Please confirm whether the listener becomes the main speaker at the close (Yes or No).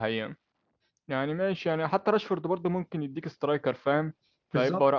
No